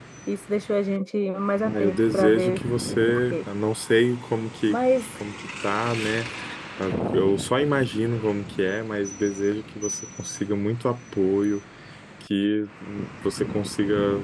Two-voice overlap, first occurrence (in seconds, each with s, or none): 1.6 s